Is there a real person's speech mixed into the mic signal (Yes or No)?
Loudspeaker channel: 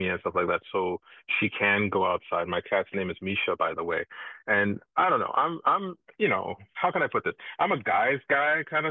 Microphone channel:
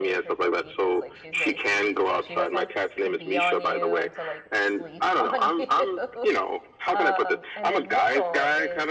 Yes